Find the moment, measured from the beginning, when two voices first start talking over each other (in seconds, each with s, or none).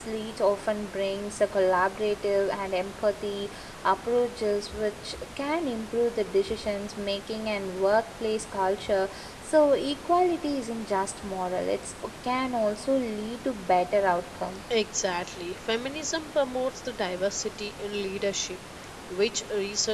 none